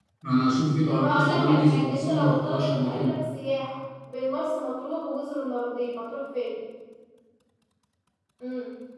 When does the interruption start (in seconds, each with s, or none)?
0.9 s